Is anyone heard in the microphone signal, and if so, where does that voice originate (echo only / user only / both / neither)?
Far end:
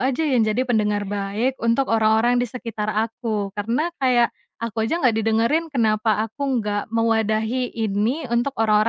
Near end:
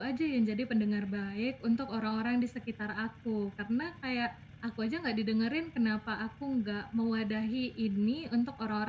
echo only